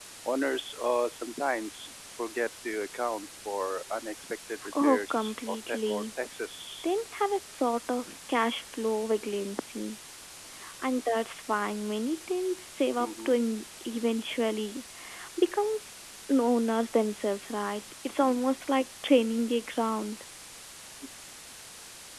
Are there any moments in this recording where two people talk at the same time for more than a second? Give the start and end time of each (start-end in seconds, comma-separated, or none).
4.7-6.0